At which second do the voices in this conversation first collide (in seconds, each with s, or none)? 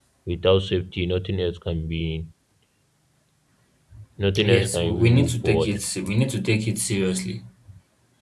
4.4 s